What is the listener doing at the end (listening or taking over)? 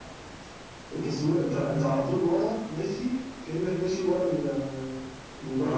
taking over